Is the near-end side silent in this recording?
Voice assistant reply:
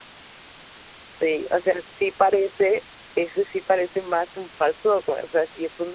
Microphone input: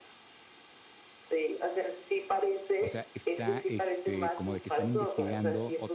No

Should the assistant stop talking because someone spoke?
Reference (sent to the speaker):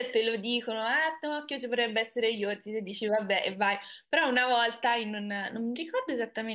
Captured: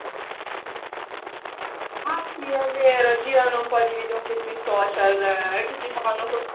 Yes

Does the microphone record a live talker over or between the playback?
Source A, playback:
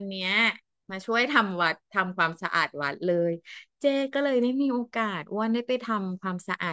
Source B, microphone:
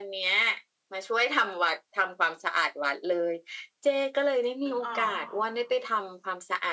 Yes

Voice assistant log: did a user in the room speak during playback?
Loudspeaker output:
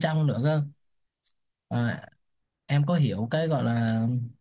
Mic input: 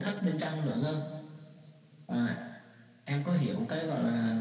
No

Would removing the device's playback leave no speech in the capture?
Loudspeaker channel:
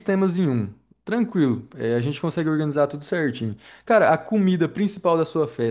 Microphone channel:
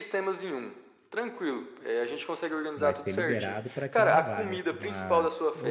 No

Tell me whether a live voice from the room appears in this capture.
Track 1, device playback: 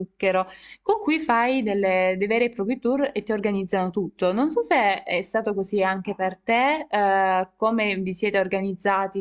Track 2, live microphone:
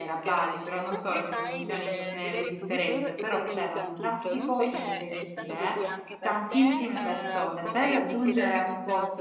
Yes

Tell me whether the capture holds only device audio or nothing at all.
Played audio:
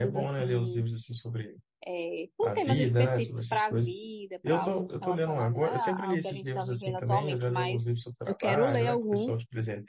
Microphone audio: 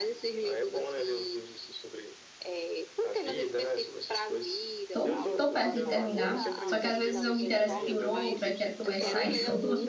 No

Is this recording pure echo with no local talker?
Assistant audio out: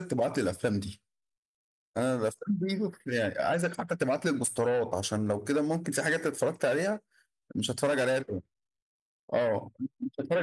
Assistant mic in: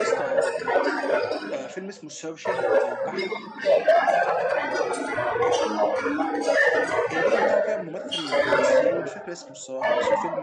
No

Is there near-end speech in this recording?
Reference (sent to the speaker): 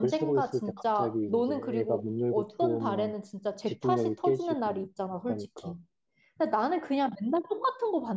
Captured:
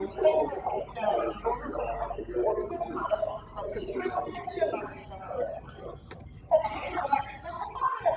No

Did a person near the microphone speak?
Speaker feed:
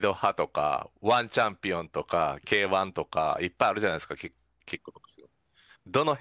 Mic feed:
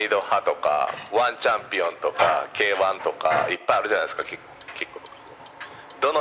No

